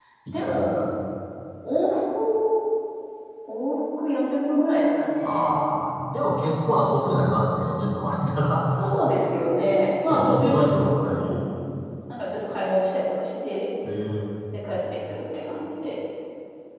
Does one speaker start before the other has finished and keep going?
Yes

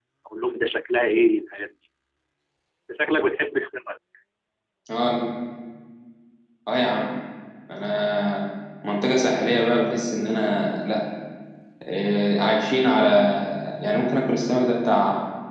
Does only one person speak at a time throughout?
Yes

